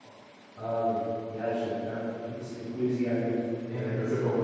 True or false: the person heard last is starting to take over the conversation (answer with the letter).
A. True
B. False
A